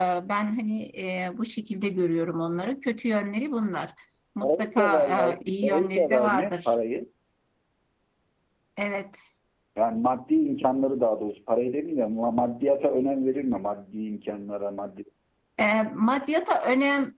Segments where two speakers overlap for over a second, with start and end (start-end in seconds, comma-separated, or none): 4.4-6.5